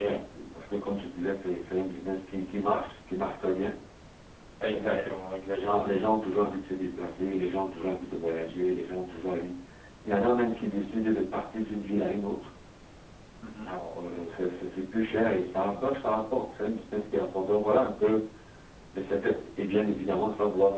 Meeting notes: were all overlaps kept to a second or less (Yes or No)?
Yes